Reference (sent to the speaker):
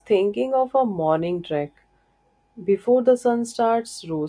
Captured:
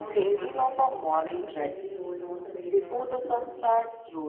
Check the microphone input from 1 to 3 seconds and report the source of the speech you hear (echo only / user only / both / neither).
both